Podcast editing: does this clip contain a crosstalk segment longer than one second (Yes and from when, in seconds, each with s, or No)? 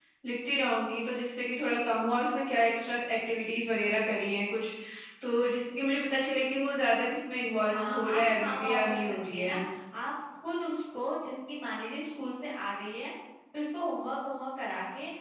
Yes, from 7.7 s